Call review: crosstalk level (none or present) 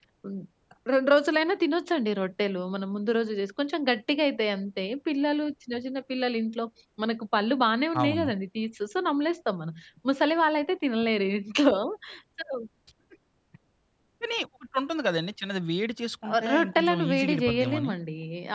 present